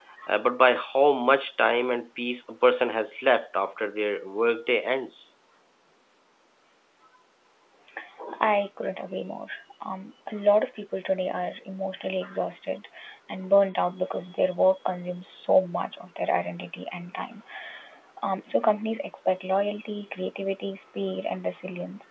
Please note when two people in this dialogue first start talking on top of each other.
none

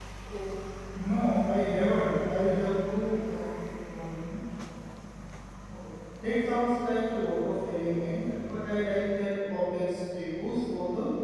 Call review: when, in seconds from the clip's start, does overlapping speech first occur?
none

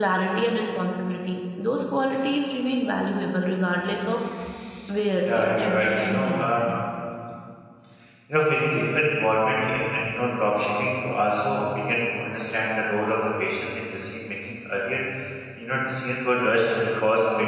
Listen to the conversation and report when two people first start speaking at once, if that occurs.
5 s

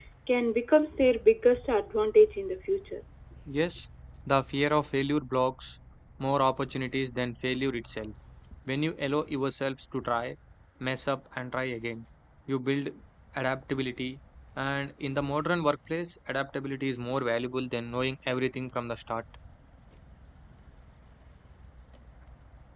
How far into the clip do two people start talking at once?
none

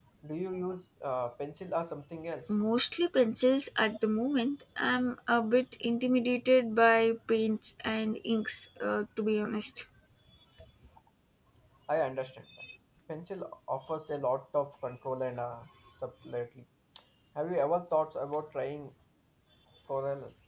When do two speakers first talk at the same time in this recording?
none

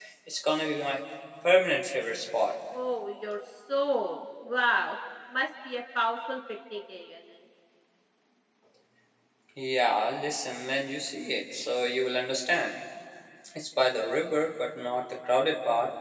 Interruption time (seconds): none

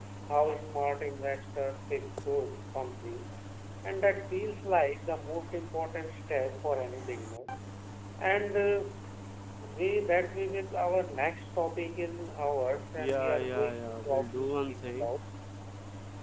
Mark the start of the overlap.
13 s

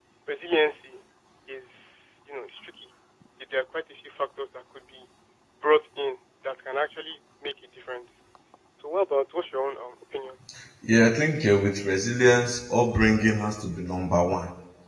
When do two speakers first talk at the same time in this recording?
none

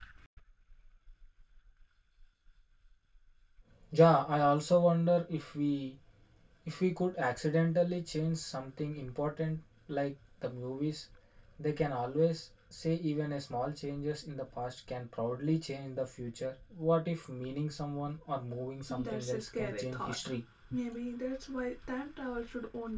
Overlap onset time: 19 s

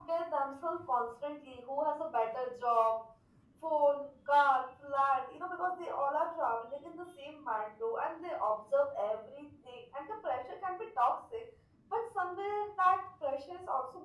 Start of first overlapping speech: none

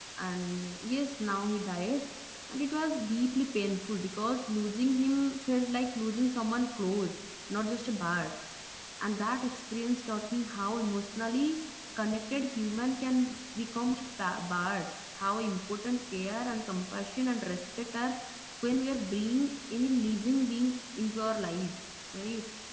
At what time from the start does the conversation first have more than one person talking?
none

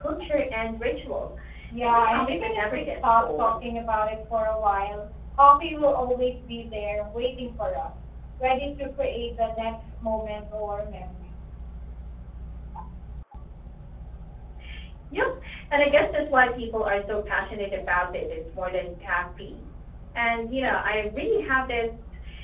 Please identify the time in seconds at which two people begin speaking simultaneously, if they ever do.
2 s

